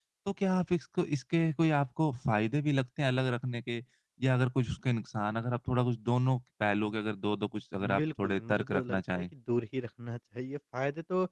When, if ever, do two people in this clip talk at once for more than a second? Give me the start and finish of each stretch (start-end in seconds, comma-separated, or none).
8.0-9.2